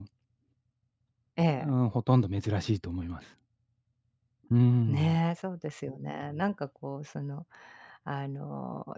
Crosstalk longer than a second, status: none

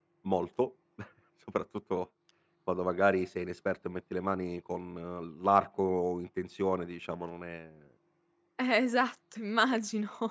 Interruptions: none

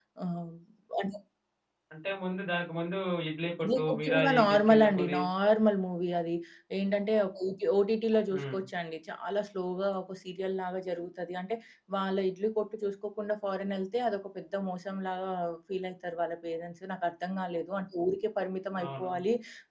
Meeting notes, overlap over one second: present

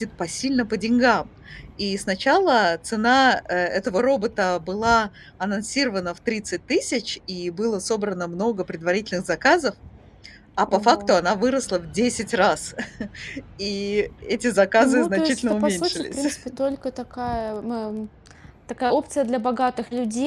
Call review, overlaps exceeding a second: present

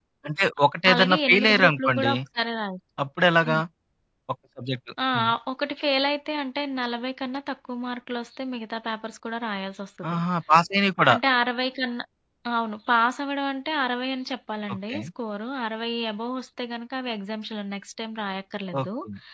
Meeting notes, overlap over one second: present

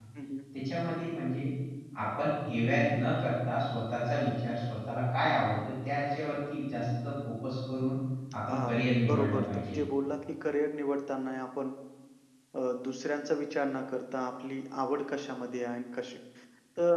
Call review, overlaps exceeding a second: present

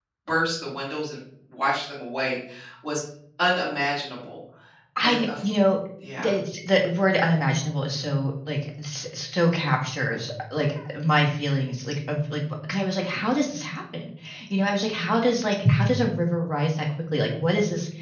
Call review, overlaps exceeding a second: none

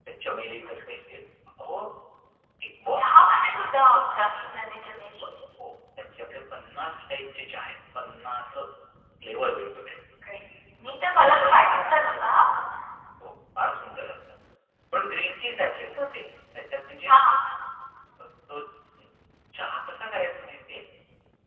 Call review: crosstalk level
none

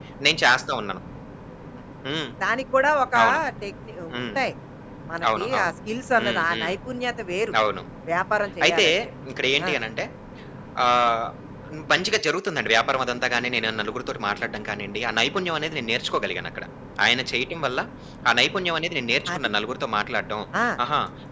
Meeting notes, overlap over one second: none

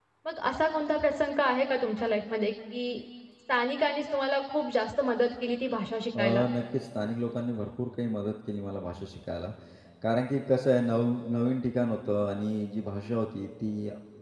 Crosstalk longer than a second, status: none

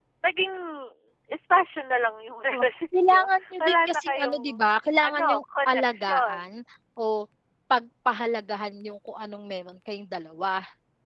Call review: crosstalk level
present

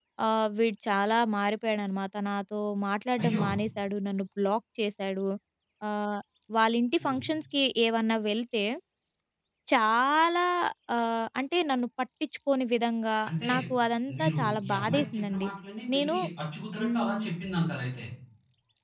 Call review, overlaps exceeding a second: present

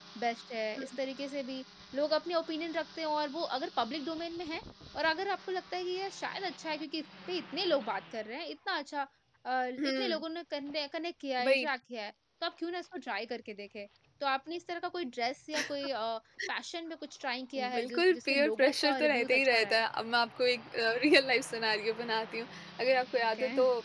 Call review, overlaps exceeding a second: present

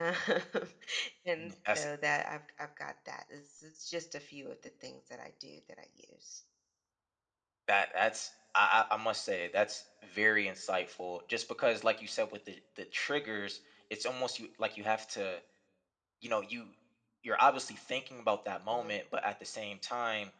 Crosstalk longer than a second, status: none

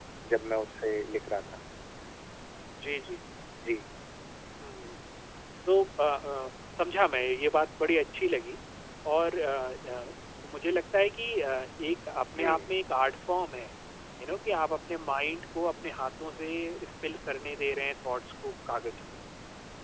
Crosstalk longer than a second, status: none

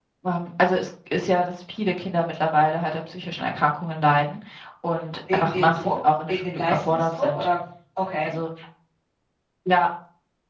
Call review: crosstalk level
present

